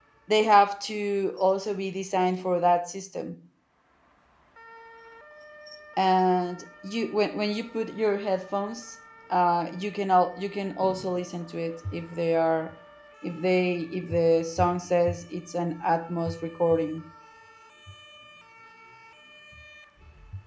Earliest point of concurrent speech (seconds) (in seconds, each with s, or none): none